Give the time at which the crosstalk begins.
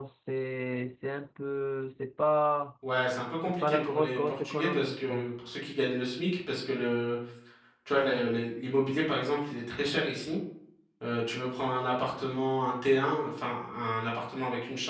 3.6 s

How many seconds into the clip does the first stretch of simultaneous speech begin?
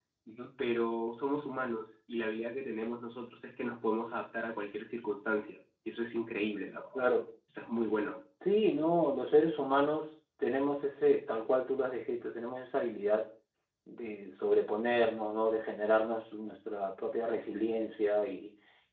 none

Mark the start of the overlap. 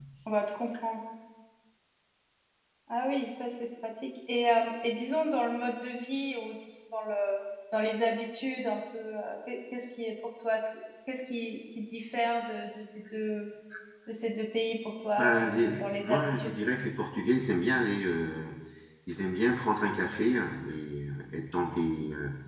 15.2 s

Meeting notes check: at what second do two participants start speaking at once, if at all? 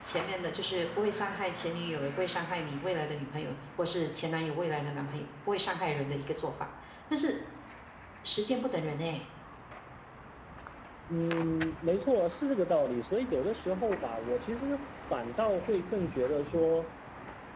none

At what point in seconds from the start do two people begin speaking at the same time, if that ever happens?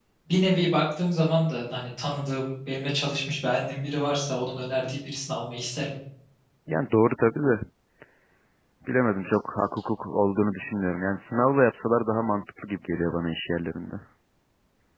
none

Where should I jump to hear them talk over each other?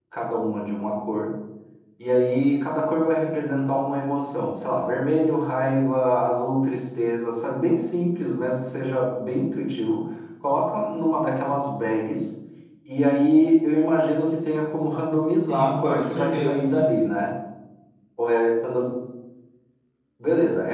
15.5 s

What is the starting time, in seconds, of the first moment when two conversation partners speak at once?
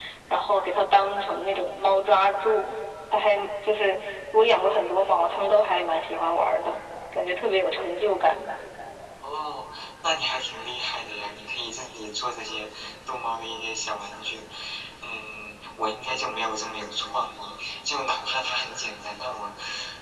none

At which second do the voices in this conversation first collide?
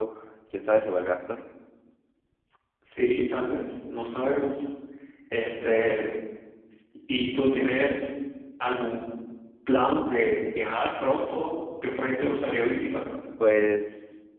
none

